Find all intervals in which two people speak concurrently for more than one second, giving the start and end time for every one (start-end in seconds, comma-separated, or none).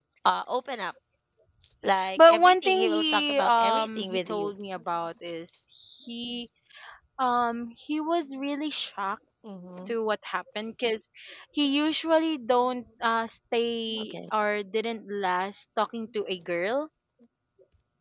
2.2-4.5